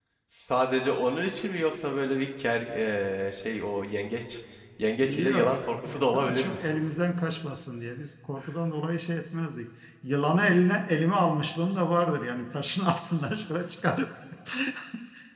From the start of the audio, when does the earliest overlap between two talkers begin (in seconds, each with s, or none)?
5.0 s